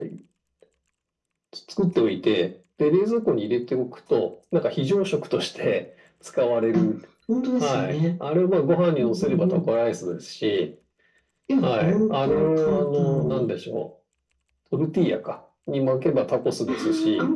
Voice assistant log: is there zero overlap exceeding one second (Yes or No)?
No